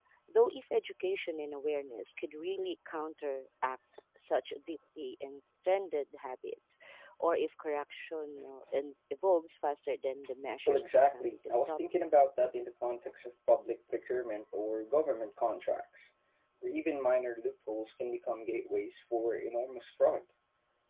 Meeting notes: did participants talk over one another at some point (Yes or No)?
Yes